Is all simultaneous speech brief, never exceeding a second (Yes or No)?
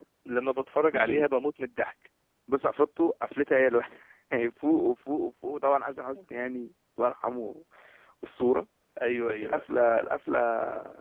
Yes